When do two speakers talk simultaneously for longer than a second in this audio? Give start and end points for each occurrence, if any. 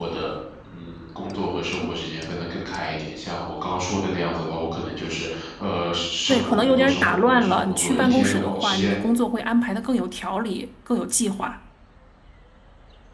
6.3-8.9

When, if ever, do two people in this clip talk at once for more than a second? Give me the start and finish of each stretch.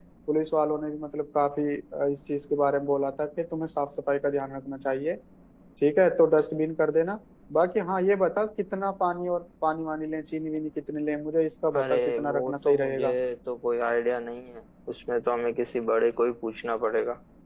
11.8-13.2

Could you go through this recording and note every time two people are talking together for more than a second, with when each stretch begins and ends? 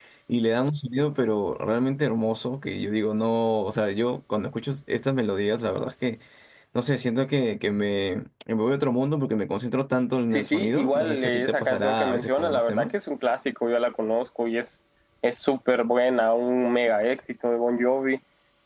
10.3-12.9

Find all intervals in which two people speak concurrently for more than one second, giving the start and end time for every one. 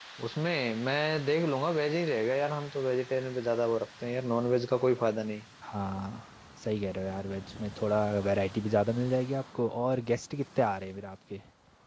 none

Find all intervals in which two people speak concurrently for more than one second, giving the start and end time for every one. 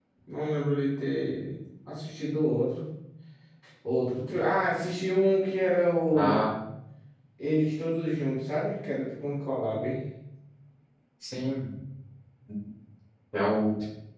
none

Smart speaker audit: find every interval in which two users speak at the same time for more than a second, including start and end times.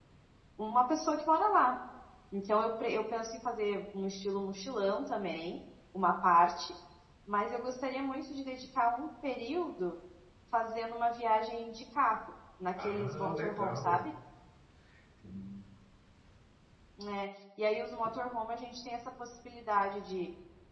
12.8-14.0

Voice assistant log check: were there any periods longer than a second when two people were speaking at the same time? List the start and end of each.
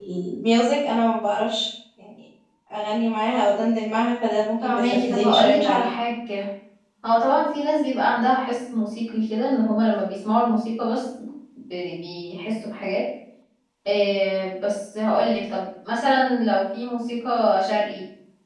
4.6-5.9

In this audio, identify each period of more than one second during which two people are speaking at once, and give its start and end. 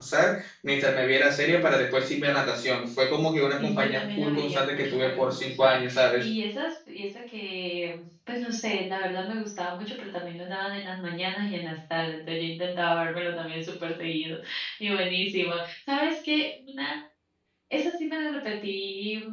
3.6-6.2

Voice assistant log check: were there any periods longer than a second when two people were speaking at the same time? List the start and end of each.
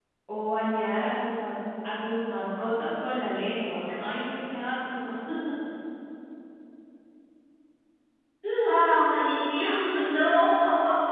none

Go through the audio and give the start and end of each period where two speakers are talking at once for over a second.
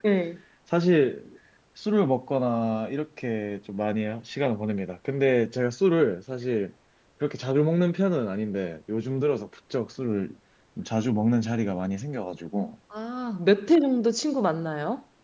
none

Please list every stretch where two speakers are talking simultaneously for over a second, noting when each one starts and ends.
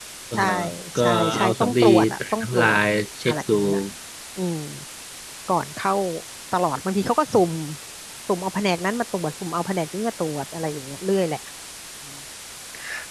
1.0-2.8

